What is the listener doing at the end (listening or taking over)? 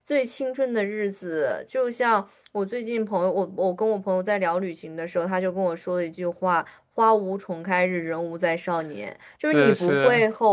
listening